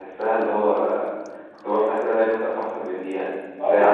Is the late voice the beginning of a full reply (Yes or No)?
Yes